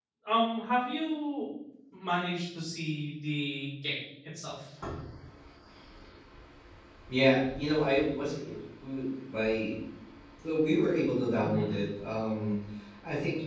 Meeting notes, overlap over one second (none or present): none